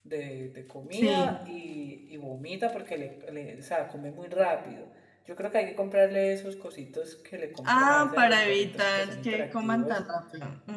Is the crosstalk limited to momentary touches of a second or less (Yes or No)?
No